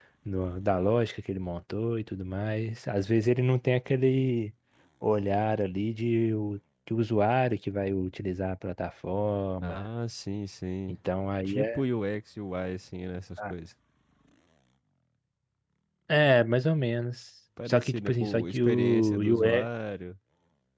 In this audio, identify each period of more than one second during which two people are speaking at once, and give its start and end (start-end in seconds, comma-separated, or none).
17.7-19.7